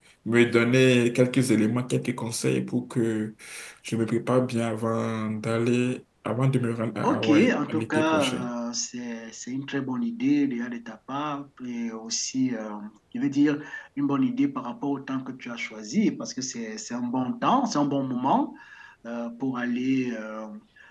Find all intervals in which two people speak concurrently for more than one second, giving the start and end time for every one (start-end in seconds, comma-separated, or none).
7.0-8.4